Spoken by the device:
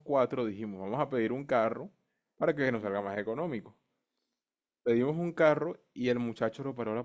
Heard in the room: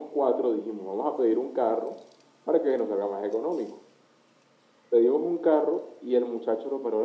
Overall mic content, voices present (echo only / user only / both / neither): echo only